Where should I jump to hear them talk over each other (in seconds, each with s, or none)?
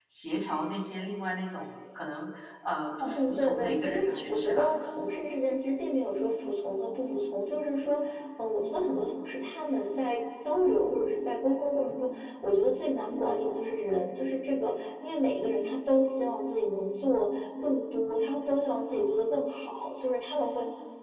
3.0 s